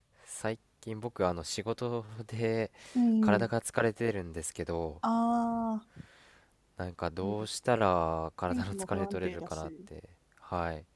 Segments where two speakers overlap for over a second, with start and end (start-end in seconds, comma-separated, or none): 8.5-9.7